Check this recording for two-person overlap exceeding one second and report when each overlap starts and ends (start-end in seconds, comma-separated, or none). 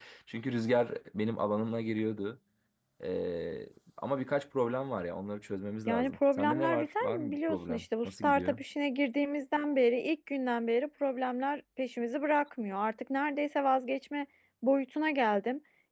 5.9-8.6